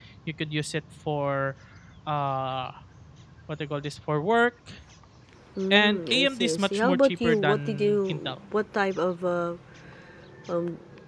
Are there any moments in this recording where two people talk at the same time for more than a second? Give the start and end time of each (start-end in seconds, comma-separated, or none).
5.7-8.4